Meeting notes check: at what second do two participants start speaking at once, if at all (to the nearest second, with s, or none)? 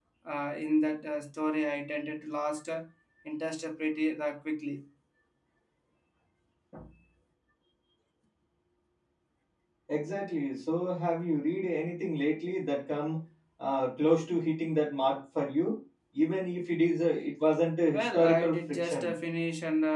18 s